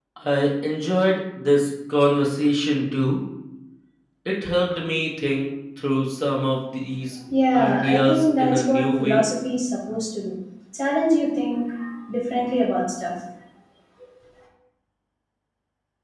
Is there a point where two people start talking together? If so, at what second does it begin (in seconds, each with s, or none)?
7.5 s